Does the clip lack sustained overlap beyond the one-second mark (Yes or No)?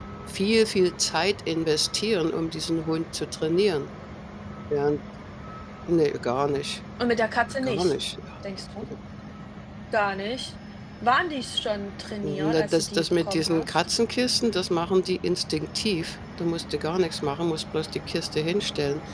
No